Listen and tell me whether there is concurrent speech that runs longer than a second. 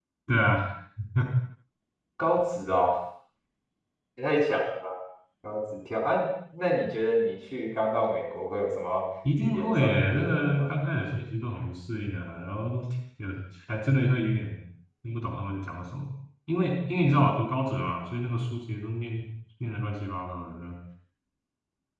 Yes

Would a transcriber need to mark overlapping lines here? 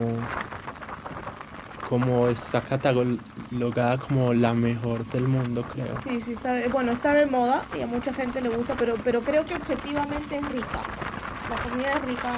No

